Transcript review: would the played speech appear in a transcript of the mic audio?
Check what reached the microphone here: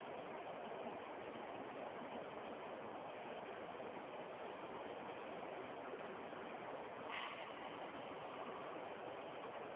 No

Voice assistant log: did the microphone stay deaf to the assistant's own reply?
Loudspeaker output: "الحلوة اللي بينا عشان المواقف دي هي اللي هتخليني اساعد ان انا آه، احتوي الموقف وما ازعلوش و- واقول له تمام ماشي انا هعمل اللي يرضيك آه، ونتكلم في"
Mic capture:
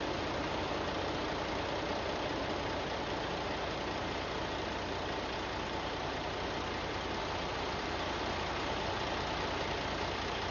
Yes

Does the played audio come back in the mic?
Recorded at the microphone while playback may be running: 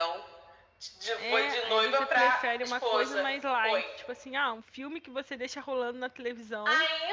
Yes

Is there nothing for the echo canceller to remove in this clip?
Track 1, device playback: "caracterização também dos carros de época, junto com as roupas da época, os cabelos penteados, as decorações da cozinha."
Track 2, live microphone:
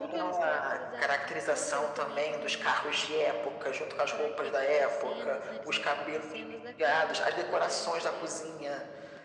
No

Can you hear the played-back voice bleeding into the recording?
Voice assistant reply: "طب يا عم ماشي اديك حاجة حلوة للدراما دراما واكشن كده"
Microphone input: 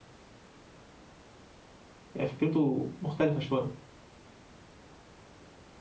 No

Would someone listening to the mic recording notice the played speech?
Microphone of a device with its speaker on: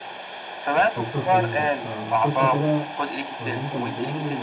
Yes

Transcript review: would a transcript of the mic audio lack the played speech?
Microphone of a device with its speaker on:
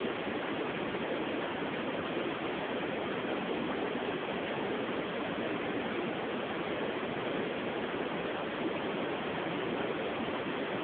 Yes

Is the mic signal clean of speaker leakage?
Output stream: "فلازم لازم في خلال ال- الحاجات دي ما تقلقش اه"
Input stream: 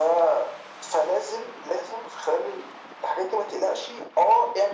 No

